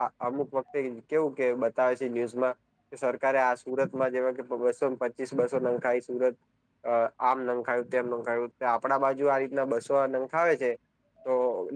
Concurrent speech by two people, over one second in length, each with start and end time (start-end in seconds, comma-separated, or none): none